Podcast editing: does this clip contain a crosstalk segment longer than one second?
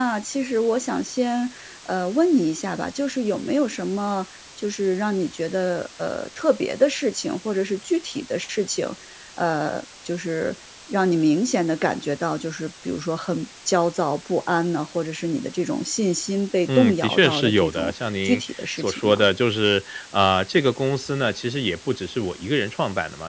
Yes, from 16.7 s

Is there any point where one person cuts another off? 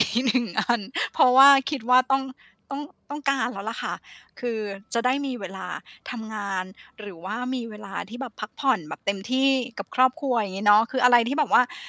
No

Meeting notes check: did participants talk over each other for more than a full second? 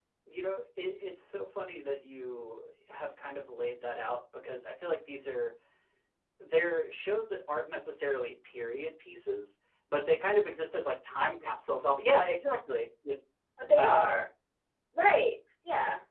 No

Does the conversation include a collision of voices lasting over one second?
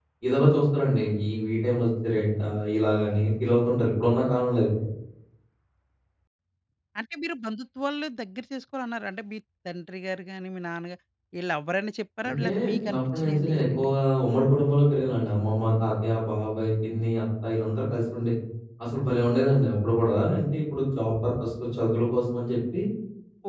Yes, from 12.2 s

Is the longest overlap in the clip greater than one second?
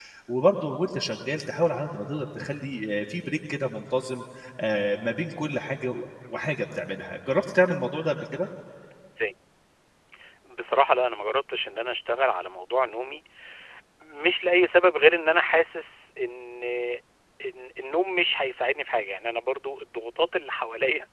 No

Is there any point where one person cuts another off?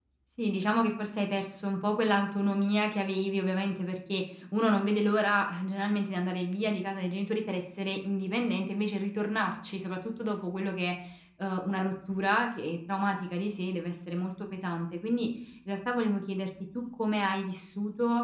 No

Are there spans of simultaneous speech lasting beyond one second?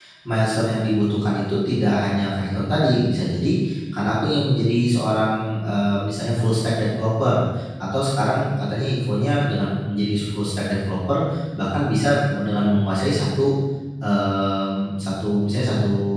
No

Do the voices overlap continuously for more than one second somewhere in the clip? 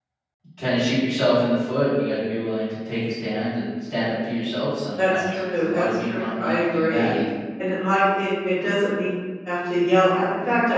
Yes, from 5.0 s

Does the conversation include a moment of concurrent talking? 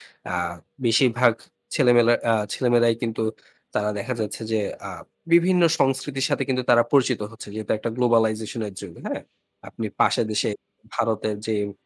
No

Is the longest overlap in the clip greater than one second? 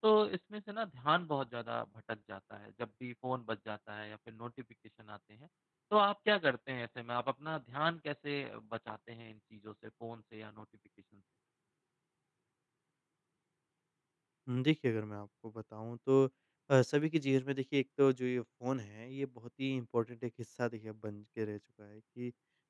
No

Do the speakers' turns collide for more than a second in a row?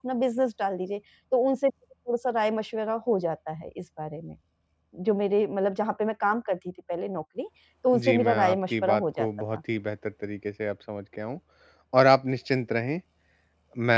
Yes, from 7.9 s

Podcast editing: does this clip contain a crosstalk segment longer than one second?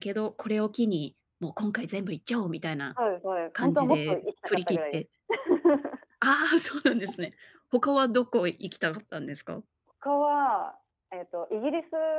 Yes, from 3.6 s

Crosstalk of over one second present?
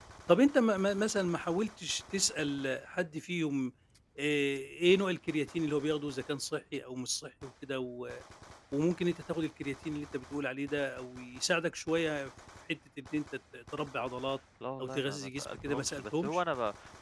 Yes, from 14.8 s

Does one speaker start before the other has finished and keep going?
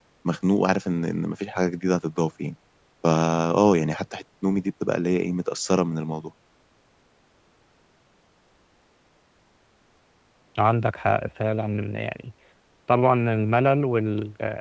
No

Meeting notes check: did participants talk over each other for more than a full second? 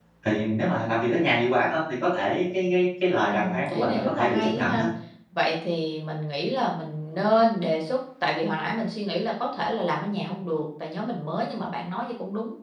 Yes, from 3.2 s

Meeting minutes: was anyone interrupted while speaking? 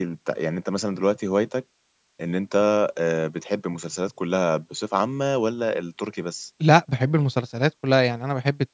No

